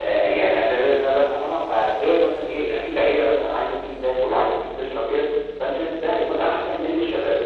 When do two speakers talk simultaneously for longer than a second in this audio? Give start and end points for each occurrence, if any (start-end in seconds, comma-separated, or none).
none